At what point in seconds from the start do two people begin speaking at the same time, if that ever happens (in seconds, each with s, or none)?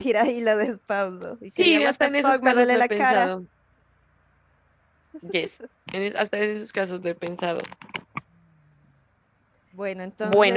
1.6 s